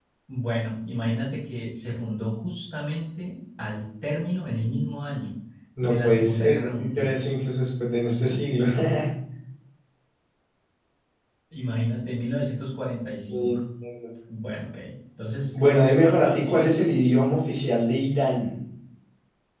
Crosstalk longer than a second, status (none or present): present